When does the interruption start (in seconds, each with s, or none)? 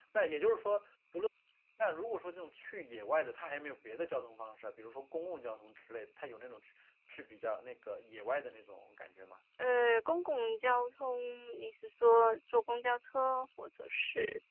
none